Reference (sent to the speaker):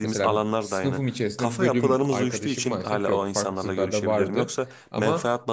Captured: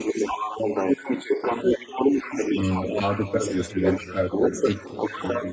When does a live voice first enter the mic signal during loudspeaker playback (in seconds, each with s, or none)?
2.6 s